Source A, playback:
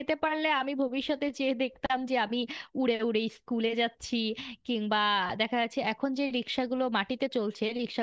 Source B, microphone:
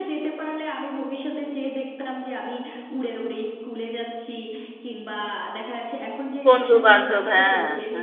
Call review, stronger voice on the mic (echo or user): user